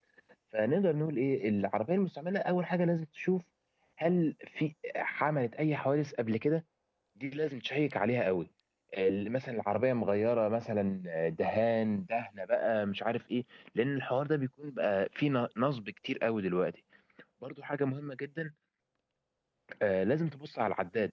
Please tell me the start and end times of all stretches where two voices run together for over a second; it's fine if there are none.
none

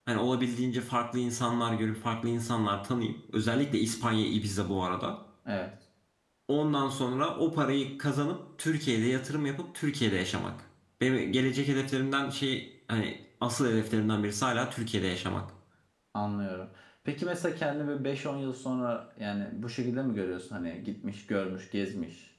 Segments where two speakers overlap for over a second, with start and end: none

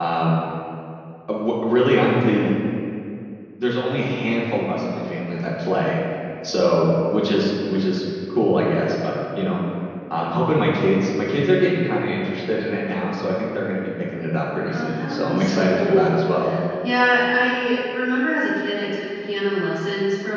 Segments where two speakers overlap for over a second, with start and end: 14.7-16.1

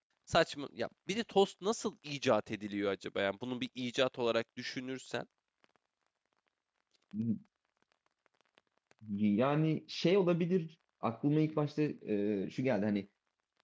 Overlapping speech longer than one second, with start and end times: none

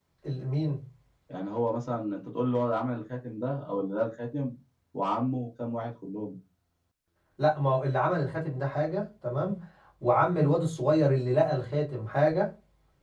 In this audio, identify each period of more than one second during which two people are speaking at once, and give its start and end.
none

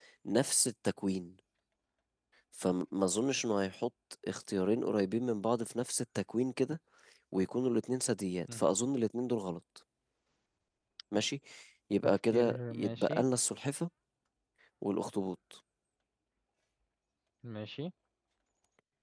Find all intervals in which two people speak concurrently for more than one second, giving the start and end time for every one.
12.0-13.2

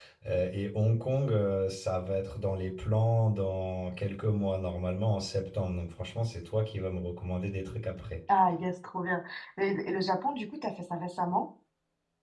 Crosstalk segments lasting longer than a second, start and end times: none

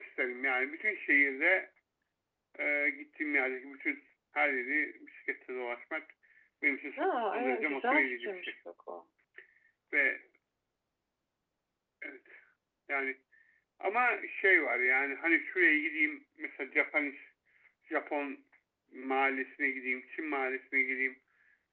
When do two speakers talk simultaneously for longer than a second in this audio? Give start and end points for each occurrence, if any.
7.3-8.5

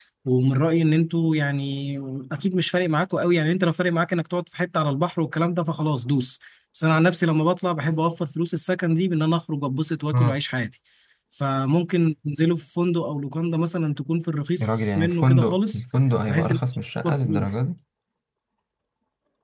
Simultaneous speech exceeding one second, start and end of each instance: 14.6-15.8

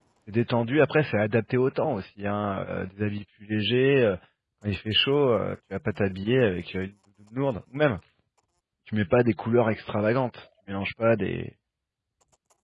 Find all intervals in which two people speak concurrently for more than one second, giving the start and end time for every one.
none

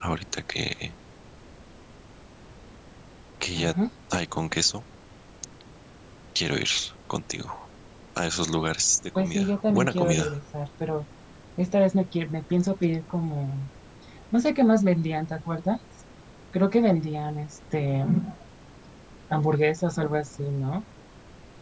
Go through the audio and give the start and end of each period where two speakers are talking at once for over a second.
9.2-10.4

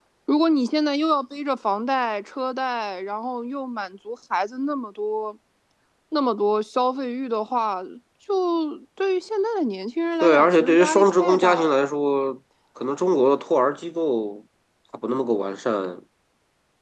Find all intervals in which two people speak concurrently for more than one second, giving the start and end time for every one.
10.2-11.8

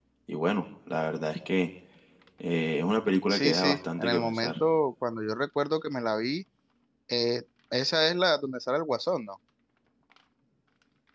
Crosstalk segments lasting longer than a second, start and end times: 3.3-4.5

